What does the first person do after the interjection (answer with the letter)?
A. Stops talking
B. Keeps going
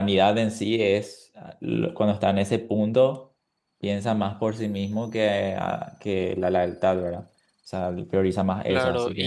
A